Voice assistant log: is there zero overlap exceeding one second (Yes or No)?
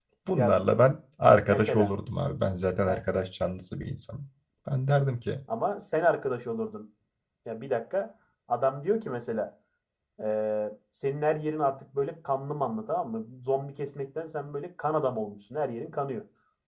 Yes